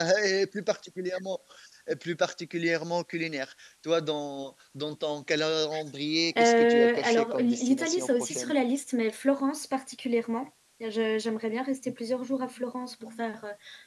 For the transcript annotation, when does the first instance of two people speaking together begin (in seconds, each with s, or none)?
6.3 s